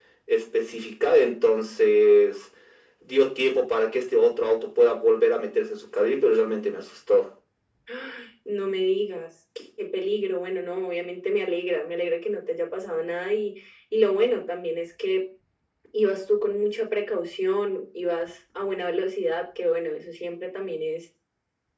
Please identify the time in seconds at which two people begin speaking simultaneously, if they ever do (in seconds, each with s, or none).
none